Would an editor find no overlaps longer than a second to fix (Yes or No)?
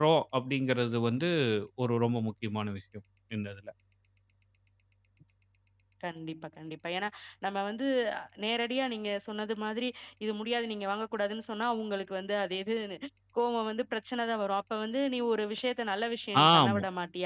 Yes